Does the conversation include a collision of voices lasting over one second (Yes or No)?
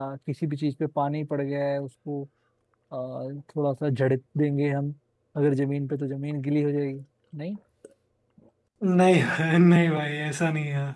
No